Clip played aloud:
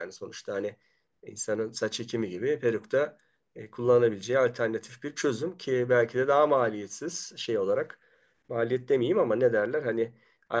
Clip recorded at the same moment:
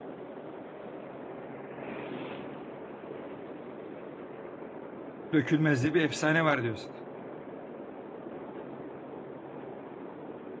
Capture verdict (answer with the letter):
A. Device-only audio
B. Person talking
B